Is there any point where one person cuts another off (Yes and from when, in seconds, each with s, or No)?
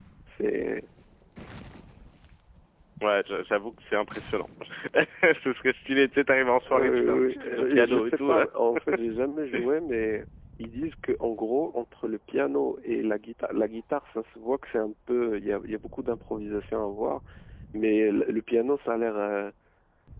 Yes, from 6.7 s